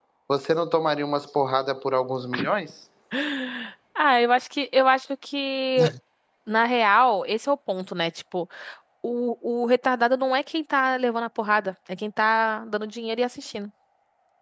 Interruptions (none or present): none